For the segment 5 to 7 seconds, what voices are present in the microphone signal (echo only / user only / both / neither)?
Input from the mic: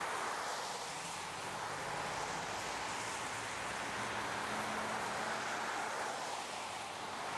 neither